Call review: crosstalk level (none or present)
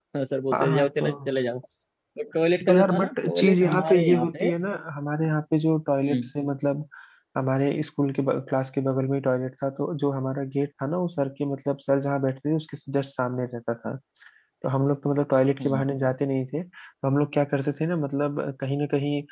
present